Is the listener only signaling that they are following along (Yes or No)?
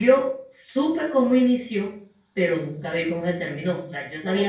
No